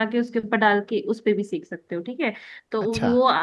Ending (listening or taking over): listening